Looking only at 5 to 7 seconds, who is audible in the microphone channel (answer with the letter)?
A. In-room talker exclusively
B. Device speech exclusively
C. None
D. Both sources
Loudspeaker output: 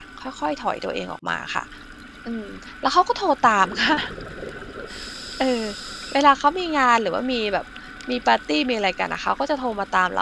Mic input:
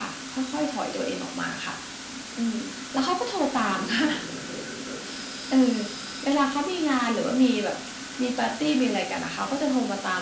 B